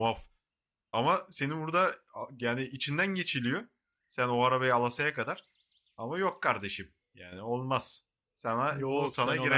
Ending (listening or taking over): taking over